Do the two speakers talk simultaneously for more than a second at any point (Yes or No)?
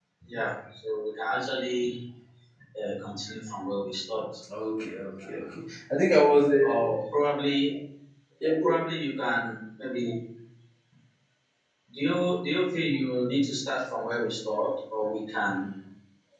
No